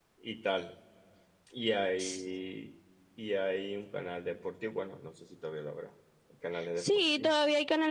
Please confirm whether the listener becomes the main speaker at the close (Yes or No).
Yes